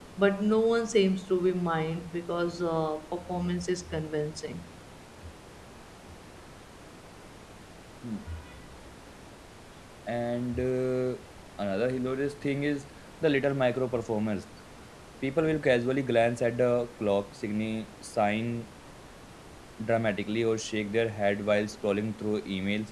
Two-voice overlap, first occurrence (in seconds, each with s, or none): none